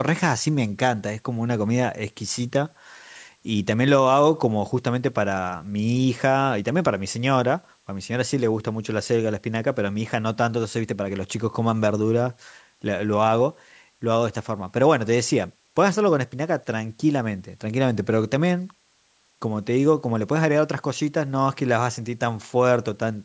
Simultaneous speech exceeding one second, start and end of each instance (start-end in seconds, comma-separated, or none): none